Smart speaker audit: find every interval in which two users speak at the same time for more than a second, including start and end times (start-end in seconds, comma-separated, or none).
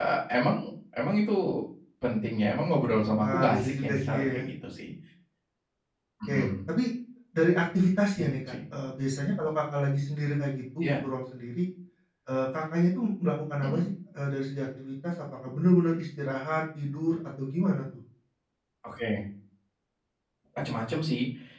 3.2-4.4